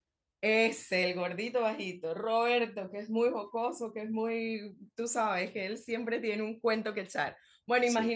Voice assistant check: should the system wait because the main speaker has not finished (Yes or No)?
Yes